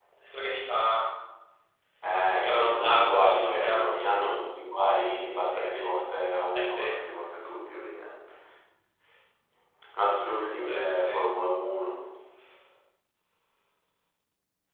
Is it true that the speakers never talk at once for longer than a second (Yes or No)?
No